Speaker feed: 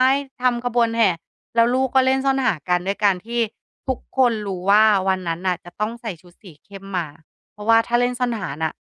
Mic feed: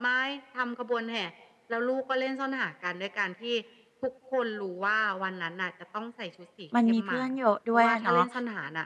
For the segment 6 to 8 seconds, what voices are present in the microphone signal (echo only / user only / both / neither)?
both